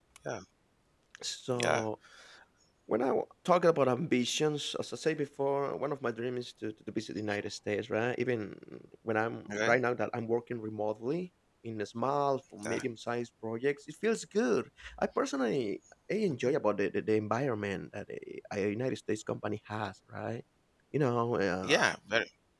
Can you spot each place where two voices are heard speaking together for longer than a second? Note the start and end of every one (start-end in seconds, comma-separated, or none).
none